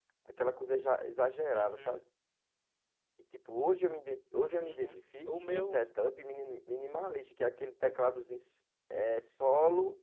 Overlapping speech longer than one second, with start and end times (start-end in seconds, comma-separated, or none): 4.6-5.8